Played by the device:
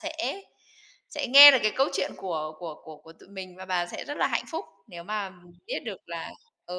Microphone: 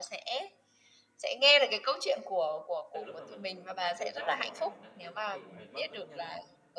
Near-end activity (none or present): present